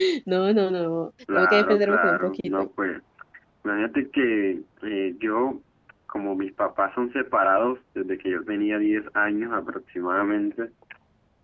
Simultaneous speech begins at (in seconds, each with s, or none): 1.3 s